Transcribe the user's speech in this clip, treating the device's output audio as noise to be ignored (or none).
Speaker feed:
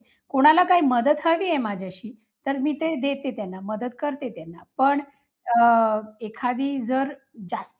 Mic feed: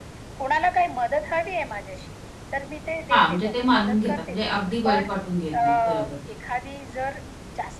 हां, म्हणजे ते मानून घेतात. म्हणजे अगदी वाईट वाटून घेत नाहीत. बरोबर.